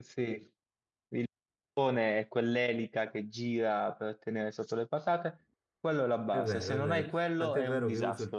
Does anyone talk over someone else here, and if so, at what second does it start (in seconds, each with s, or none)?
6.3 s